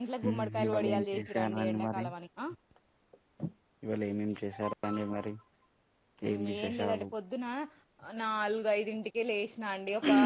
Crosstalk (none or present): present